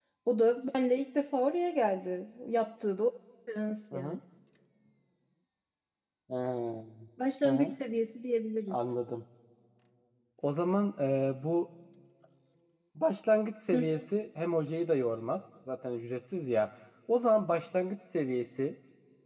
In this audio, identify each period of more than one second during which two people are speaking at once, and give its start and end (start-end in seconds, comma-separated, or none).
none